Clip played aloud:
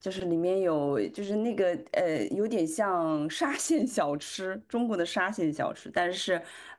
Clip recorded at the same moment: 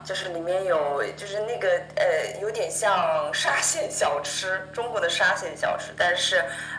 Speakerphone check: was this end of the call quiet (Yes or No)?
Yes